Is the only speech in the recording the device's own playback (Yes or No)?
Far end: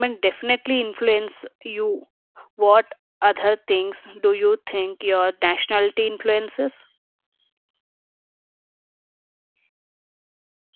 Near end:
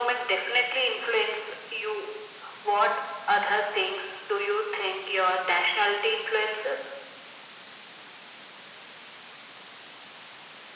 Yes